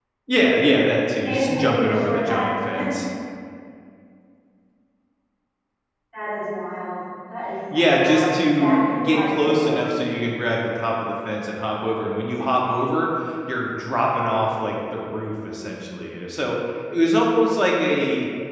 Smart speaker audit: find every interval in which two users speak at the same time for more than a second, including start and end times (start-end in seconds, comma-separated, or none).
1.3-2.5, 7.7-9.8